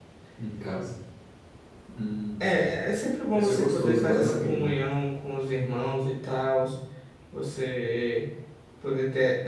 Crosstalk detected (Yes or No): Yes